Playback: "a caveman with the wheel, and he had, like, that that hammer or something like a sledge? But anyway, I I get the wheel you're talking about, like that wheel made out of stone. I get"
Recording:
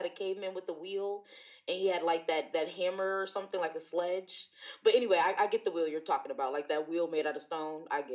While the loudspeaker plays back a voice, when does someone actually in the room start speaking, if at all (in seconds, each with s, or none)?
none